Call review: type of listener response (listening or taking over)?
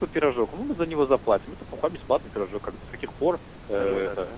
listening